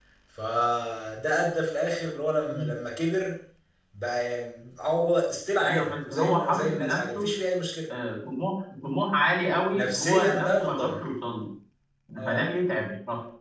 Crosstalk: present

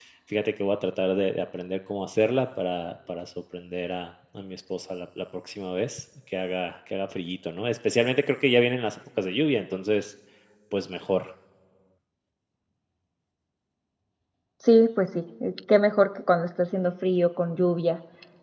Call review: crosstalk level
none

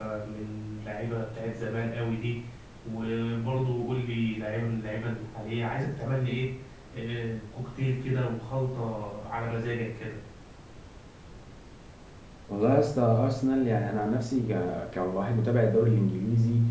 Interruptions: none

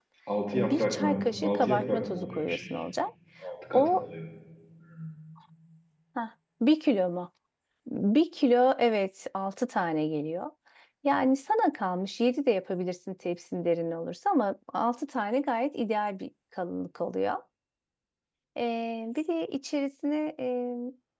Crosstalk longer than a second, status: present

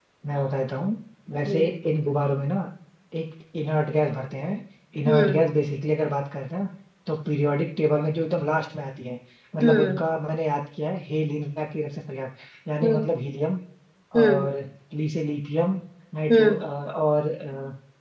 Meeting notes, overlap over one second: none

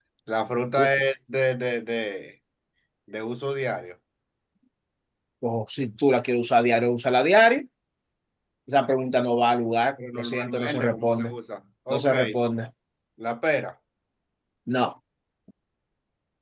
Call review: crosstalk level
present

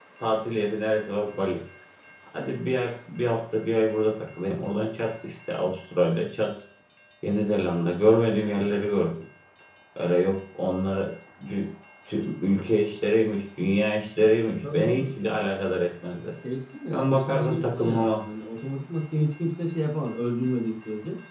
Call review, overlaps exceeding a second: present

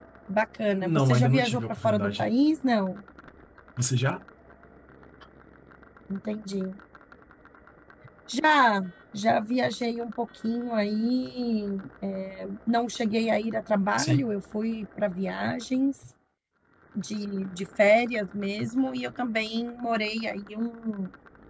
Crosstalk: present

